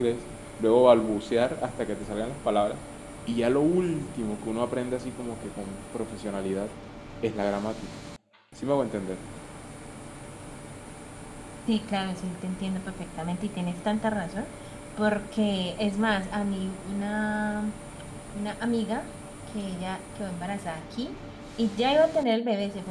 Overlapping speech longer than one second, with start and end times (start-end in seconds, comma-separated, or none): none